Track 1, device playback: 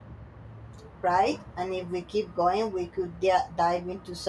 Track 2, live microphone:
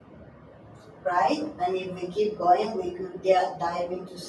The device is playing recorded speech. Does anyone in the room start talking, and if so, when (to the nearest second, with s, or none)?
none